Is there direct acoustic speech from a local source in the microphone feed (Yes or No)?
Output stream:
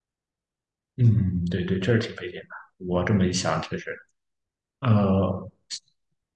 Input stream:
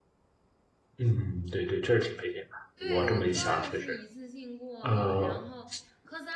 Yes